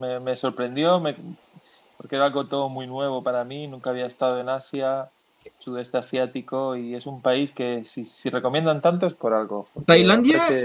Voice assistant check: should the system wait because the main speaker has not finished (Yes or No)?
No